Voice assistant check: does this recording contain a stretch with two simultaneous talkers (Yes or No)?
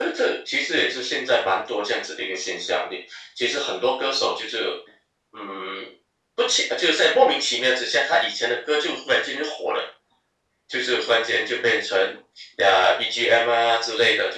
No